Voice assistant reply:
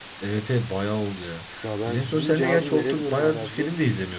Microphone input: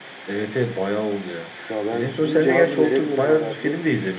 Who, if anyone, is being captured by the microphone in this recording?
echo only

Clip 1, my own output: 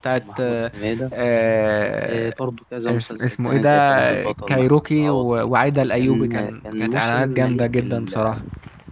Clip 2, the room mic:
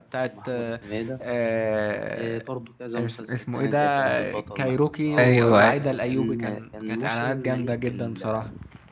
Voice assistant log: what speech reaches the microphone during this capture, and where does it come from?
both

